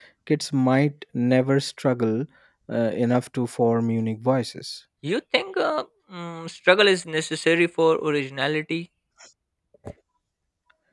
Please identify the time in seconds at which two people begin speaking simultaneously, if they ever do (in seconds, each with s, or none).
none